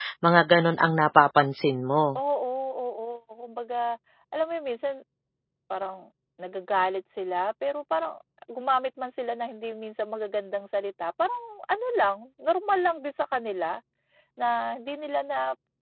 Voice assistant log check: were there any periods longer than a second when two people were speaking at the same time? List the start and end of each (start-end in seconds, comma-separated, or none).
none